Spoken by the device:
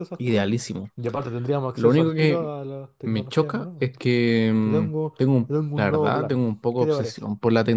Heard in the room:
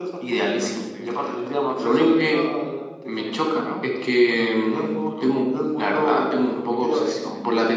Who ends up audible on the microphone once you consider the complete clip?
both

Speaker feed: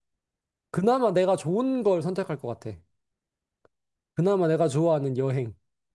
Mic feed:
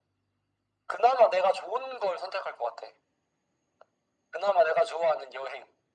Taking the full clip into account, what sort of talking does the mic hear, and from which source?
echo only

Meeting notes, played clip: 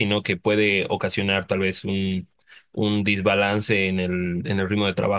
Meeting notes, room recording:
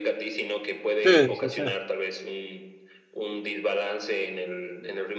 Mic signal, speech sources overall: both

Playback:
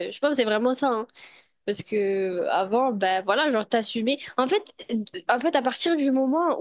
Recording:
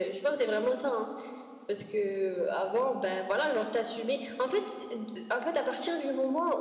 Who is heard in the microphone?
echo only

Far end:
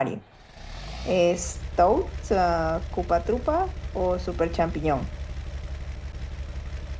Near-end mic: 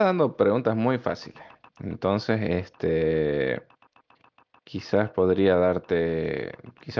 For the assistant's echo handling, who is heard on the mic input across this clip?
user only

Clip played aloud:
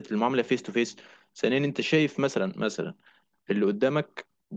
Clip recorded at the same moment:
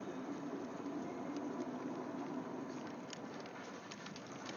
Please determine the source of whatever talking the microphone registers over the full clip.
neither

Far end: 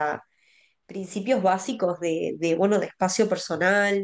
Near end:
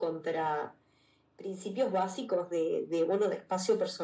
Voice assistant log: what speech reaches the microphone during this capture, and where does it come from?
echo only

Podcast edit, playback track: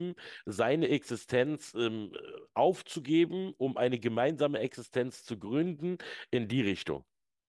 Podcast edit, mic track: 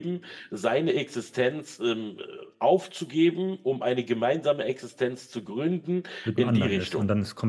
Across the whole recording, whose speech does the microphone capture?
both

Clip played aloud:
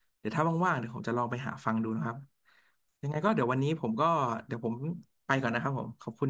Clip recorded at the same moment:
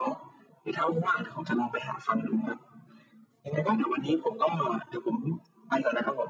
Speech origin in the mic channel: echo only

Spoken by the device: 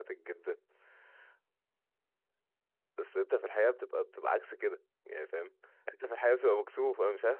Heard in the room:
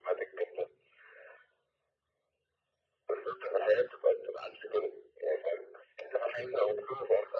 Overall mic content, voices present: echo only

